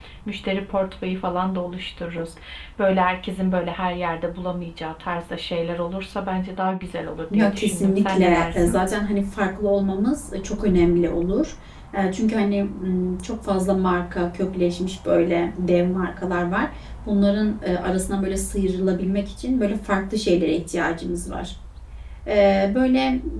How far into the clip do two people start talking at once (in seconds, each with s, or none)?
7.3 s